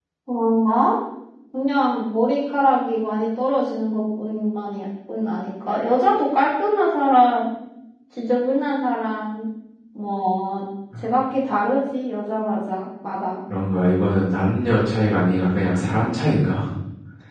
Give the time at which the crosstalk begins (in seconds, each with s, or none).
none